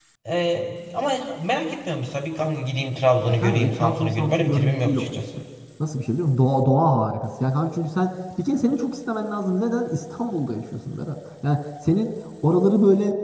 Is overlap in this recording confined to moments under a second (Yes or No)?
No